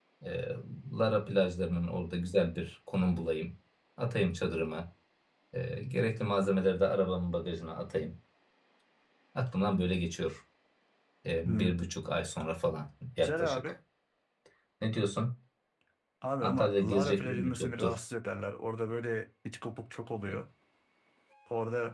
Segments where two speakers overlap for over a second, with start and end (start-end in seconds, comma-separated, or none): 16.4-18.0